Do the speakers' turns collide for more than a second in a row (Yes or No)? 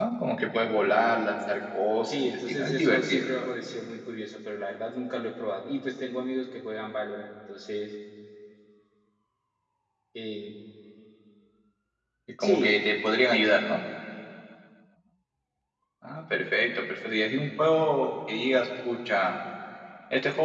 Yes